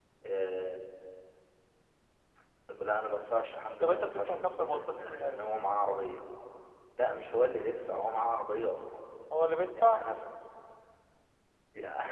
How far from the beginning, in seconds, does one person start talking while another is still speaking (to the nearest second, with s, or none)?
4 s